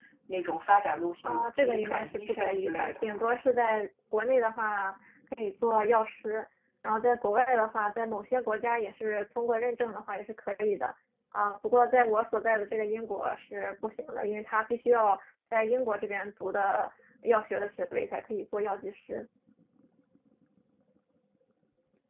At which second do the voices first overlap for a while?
1.2 s

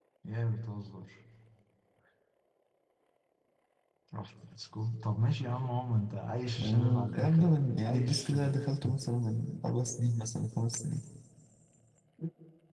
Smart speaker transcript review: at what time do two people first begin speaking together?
6.6 s

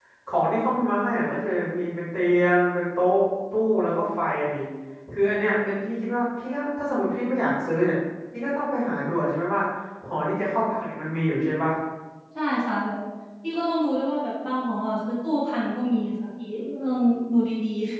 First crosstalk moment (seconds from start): none

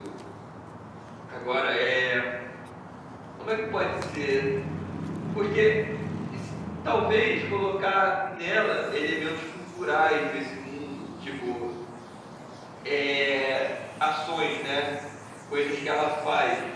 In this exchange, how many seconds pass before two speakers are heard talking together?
none

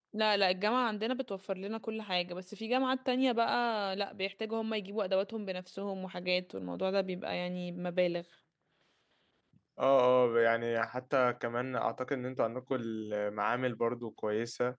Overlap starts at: none

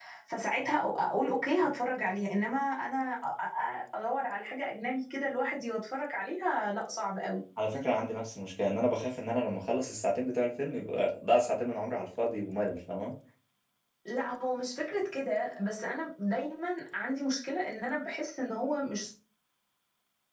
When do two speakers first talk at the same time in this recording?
none

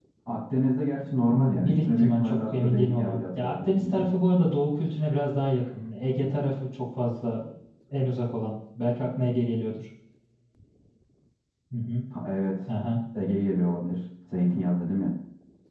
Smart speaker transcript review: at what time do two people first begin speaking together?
1.3 s

